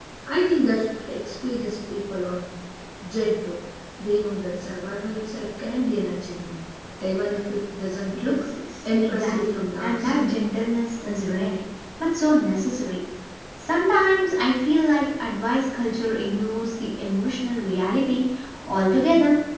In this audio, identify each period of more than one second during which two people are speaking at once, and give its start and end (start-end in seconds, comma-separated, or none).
9.0-10.3